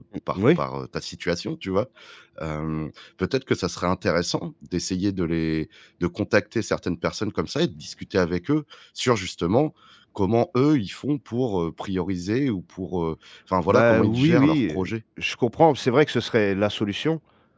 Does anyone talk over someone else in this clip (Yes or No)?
Yes